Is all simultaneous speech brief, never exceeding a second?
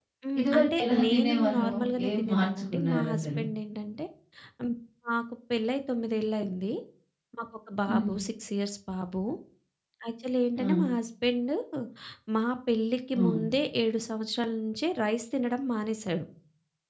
No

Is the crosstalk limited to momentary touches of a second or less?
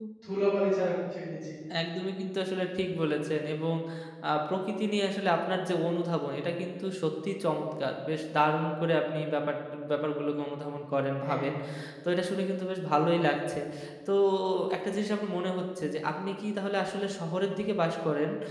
Yes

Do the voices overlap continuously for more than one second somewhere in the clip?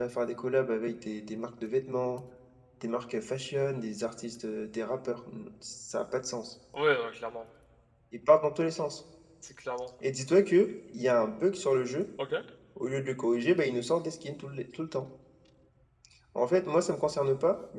No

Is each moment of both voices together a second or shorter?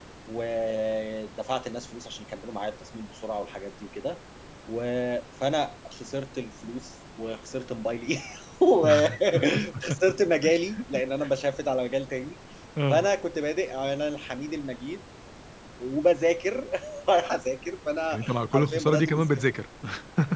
No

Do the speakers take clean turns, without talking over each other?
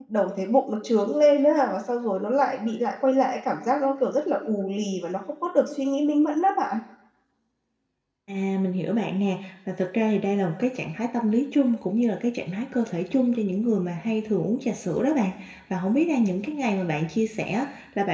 Yes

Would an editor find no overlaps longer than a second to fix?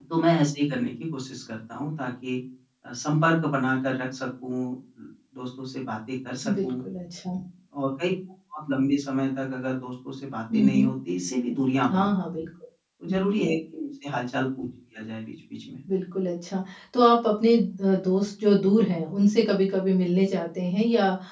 Yes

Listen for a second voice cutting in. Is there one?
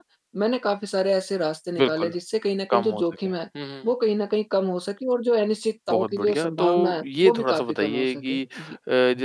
Yes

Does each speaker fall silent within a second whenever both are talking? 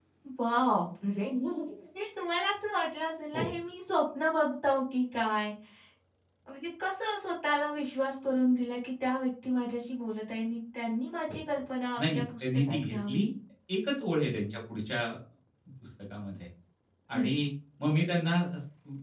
No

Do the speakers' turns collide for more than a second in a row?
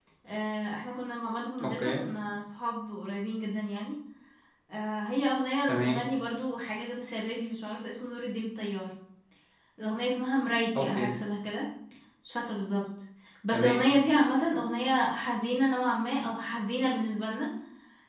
No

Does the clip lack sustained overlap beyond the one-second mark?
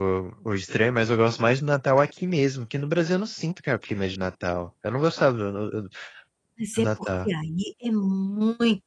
Yes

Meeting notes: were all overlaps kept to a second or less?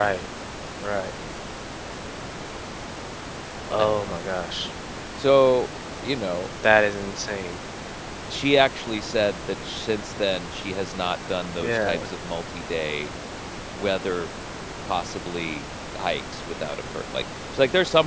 Yes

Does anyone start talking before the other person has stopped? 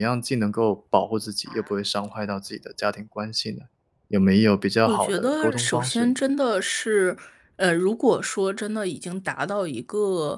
Yes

